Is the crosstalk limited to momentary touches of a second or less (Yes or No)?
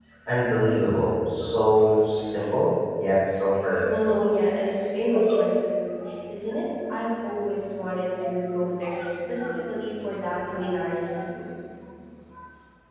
Yes